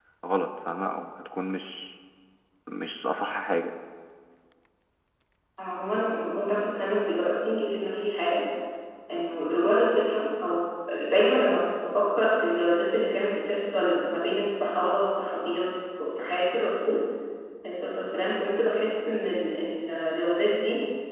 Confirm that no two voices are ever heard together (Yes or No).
Yes